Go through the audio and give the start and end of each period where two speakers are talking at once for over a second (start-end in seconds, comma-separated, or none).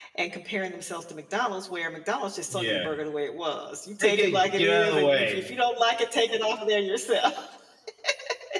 4.0-5.4